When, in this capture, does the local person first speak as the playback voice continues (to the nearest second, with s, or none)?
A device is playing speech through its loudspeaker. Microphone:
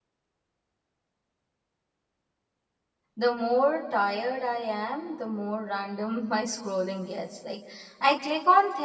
3 s